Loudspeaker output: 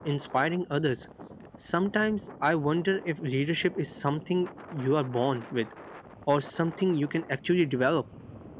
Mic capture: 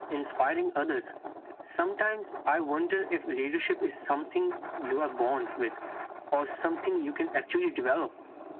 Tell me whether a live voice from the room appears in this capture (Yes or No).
No